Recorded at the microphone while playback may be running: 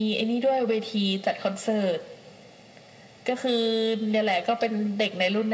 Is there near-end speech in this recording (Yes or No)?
No